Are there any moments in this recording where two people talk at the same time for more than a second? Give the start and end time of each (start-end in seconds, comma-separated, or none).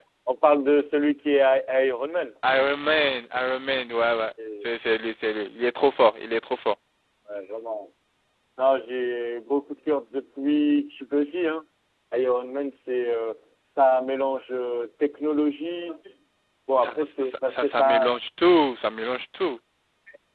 16.8-18.2